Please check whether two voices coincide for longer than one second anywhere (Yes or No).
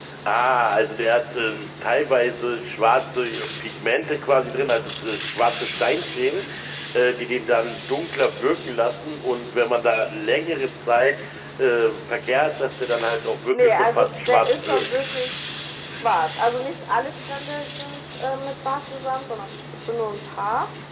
Yes